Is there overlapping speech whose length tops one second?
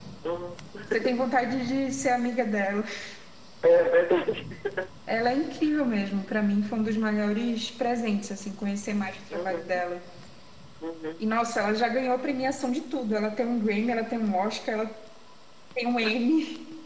No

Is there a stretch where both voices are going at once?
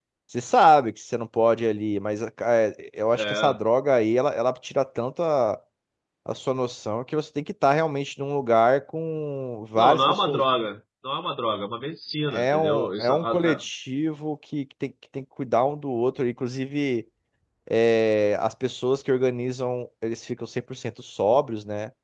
Yes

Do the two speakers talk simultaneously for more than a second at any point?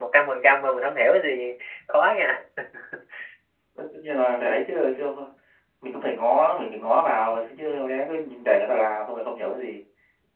No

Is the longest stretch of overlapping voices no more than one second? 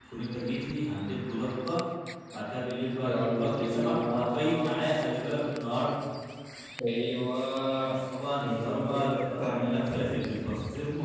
No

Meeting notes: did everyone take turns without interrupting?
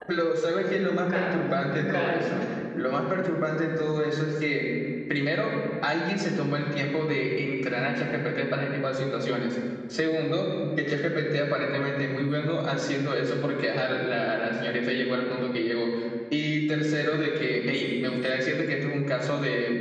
No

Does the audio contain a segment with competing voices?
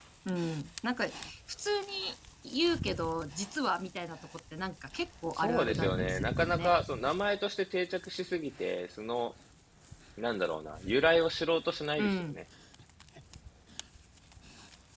Yes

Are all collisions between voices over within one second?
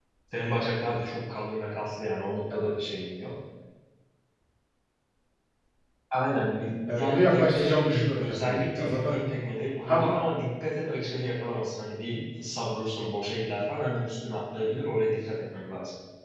No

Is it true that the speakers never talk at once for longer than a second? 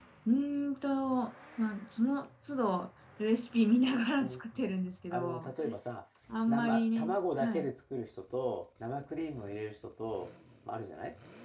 No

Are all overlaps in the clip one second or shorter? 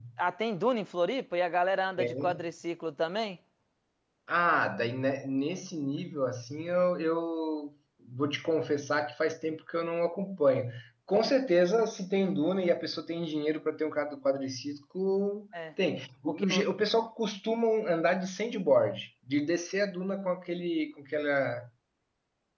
Yes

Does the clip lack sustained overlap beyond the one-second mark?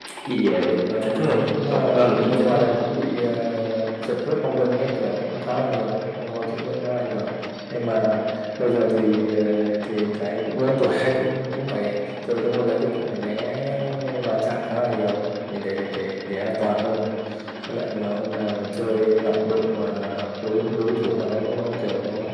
No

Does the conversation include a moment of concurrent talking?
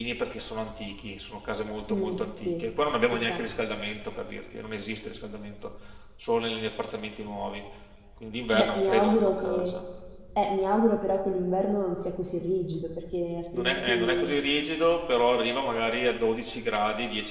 Yes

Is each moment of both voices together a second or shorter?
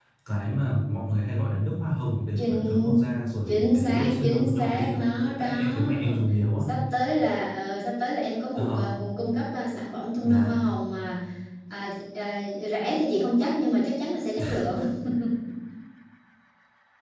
No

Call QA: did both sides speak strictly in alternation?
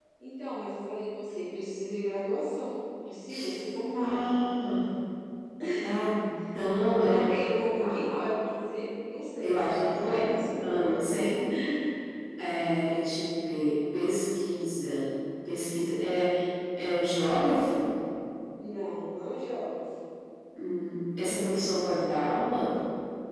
No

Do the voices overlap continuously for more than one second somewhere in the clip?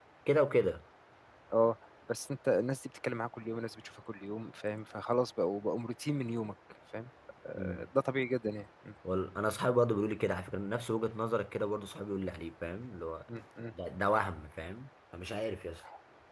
No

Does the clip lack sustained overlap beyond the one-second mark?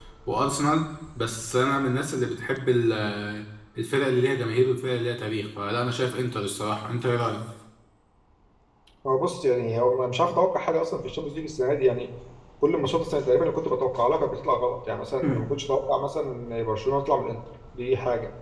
Yes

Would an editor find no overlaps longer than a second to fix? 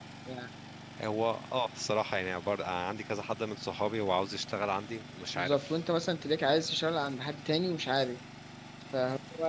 Yes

